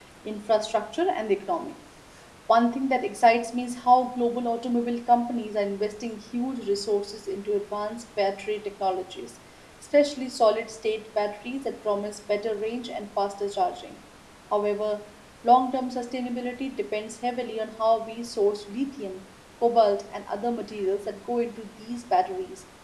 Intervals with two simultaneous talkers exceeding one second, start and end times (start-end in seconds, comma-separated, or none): none